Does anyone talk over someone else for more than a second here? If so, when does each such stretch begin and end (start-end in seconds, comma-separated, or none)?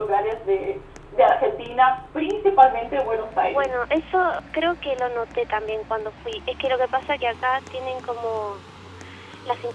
none